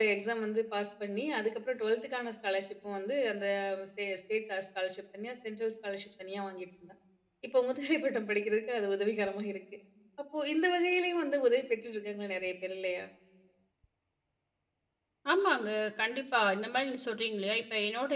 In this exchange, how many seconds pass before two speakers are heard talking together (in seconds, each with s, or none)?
none